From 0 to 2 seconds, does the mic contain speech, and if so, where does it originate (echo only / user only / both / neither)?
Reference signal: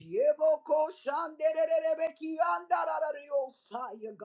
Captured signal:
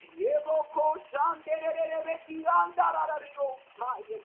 echo only